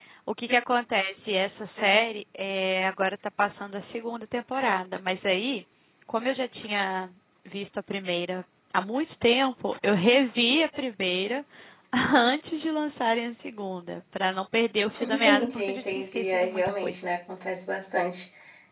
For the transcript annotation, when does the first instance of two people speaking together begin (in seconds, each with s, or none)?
15.0 s